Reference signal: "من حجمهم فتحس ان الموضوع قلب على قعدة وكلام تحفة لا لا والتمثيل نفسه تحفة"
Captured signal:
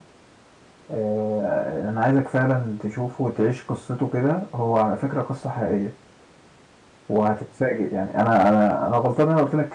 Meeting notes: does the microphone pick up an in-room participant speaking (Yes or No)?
Yes